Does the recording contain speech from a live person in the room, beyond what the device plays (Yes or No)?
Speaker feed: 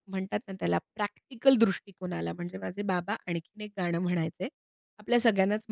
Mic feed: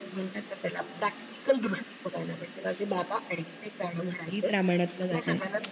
Yes